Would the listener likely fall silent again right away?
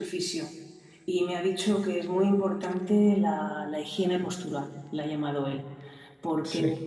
Yes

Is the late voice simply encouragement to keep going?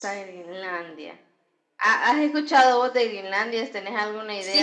No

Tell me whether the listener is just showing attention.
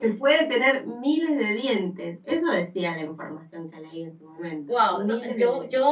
No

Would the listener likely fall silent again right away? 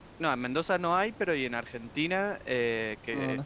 Yes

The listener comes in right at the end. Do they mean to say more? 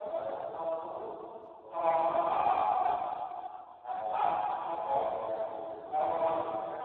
Yes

